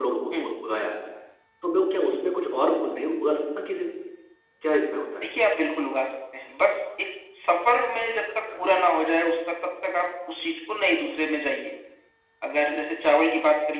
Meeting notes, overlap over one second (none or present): none